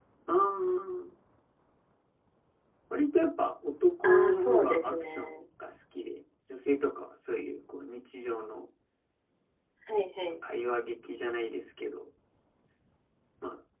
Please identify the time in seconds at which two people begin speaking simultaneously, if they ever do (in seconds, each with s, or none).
4.0 s